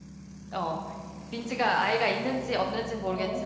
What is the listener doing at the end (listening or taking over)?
listening